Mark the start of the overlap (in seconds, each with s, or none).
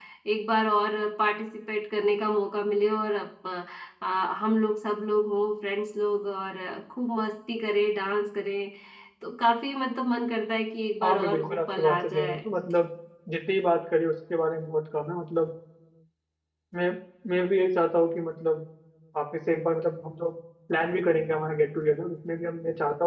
11.0 s